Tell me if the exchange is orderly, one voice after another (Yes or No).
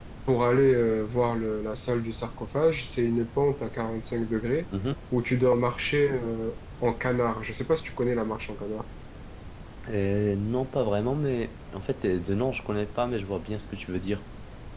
Yes